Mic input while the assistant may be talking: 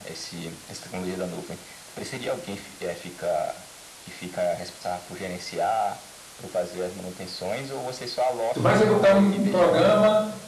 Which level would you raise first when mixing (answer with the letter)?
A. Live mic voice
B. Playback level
B